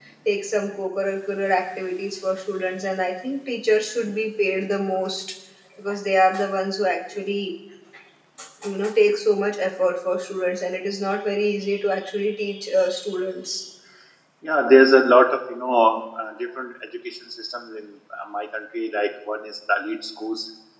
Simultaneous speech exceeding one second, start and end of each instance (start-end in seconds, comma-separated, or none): none